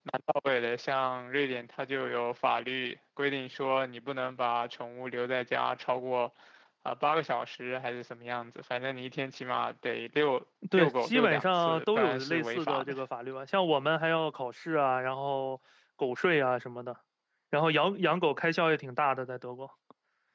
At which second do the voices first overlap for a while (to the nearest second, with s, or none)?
11 s